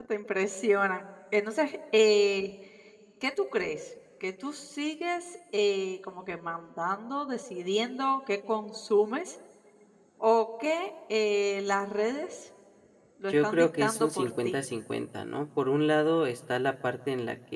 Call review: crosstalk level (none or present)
present